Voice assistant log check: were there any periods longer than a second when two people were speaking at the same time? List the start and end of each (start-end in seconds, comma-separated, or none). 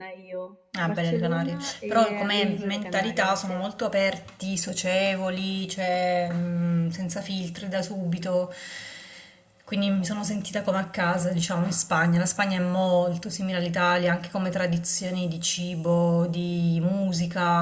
0.8-3.6